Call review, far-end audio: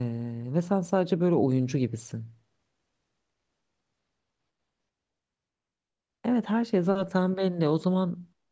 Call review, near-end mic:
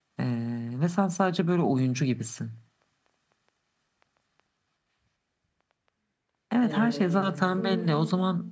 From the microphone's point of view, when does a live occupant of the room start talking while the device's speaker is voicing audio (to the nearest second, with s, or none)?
7 s